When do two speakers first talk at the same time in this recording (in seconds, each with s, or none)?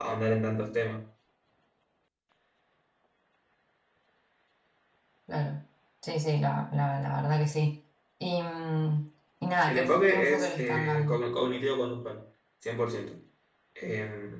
9.6 s